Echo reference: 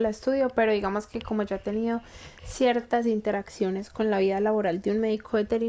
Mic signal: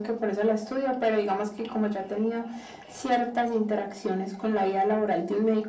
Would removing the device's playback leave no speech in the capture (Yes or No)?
Yes